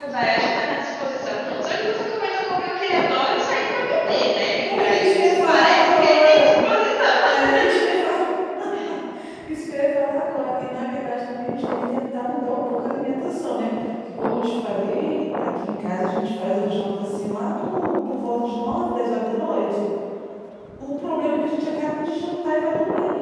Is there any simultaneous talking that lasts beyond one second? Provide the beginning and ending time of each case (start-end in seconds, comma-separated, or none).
4.8-6.5